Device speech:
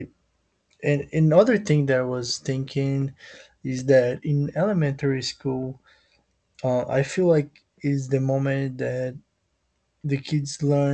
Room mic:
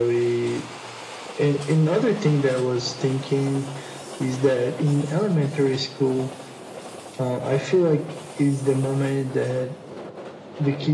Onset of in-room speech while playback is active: none

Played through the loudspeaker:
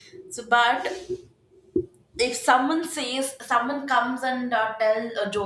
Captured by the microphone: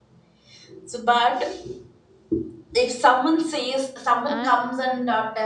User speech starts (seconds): 4.2 s

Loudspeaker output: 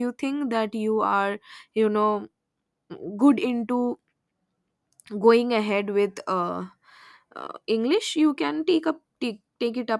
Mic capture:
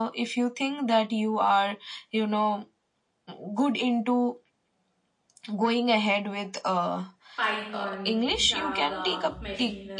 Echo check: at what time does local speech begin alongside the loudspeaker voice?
7.4 s

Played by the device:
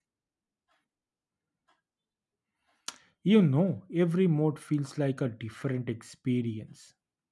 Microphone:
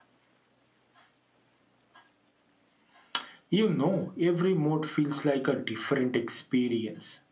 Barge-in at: none

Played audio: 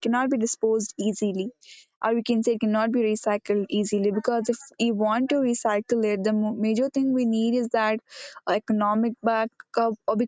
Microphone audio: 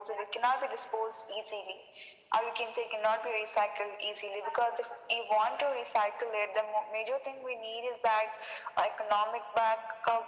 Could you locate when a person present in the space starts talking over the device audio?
none

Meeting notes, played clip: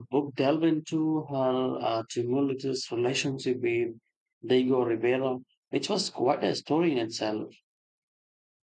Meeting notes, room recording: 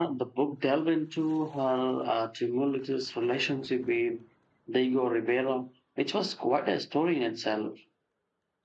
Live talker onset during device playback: none

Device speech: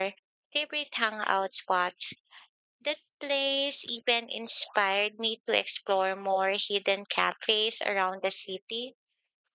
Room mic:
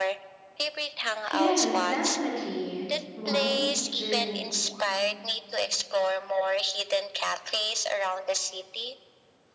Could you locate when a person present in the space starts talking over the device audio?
1.3 s

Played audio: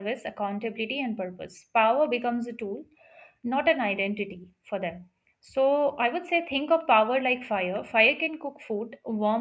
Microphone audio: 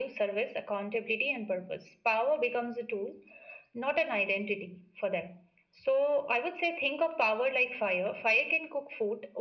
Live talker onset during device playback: none

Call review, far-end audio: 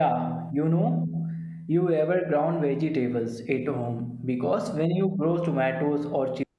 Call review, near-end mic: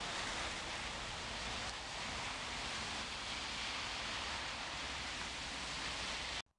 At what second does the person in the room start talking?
none

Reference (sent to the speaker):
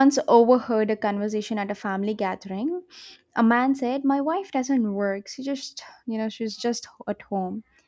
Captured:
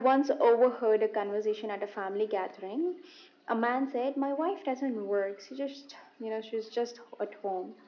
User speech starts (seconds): none

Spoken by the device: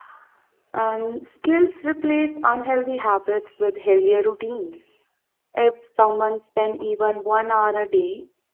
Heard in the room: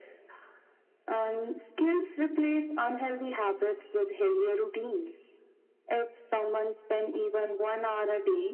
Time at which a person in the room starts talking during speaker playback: none

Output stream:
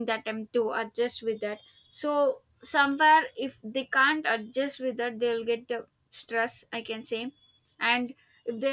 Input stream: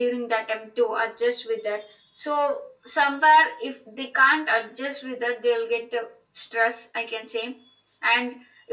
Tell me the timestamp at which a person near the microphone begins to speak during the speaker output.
none

